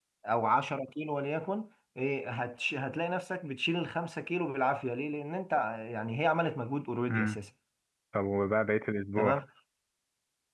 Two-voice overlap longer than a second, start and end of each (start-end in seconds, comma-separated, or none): none